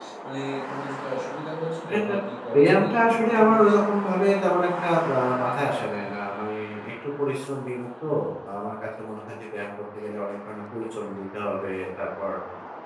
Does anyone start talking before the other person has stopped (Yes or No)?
Yes